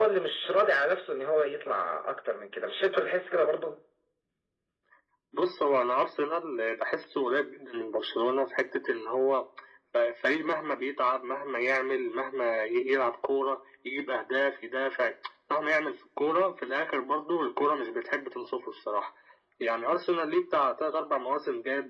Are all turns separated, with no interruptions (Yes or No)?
Yes